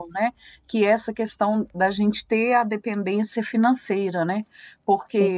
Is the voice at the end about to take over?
No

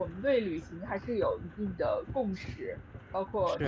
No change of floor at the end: Yes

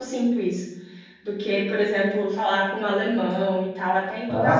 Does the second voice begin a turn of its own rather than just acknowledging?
Yes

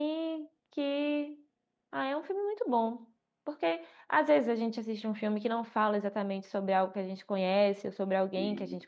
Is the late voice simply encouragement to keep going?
Yes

